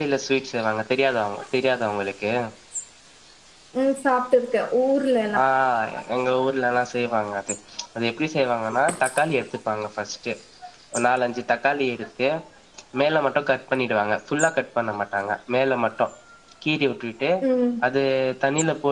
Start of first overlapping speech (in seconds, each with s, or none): none